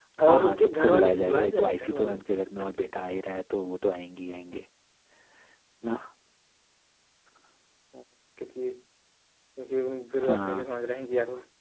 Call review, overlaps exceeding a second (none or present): present